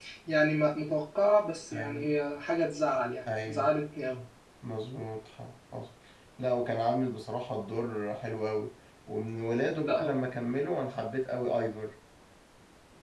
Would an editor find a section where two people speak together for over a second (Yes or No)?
No